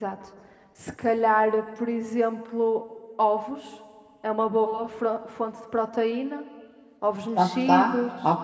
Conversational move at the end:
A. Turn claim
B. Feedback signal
A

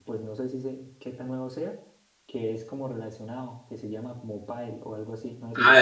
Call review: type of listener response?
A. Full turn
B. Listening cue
A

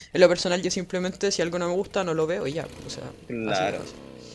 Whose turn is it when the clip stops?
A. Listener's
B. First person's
A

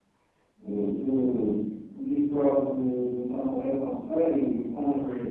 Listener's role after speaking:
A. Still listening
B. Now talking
A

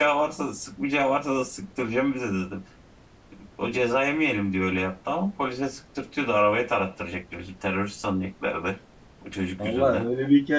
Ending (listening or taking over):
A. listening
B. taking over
B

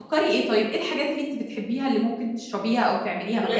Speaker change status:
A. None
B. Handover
B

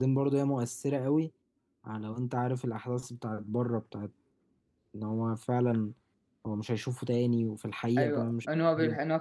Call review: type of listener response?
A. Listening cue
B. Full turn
B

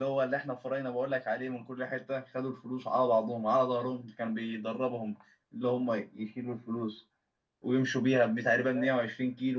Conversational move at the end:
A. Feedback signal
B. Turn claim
A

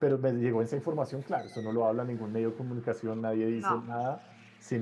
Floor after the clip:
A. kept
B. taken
A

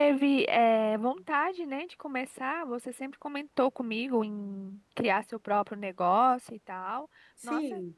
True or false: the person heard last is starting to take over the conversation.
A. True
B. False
A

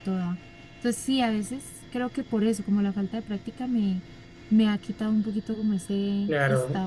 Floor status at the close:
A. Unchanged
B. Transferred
B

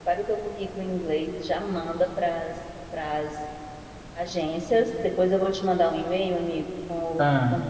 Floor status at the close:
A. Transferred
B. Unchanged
B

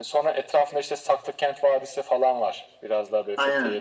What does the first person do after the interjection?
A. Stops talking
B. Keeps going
B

